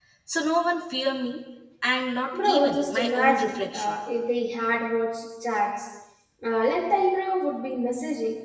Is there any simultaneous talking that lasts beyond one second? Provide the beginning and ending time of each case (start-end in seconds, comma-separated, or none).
2.3-4.0